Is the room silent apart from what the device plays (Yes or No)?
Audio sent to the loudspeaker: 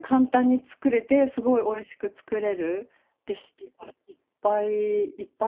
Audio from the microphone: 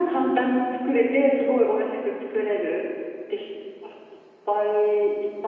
Yes